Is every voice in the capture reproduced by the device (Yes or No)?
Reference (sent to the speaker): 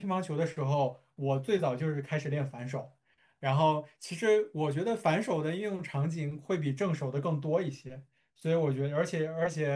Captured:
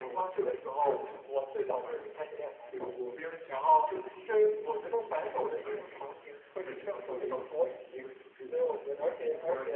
No